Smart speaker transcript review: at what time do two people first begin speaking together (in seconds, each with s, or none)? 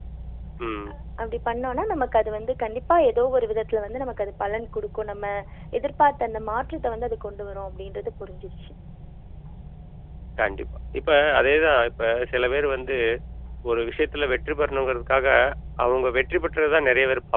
none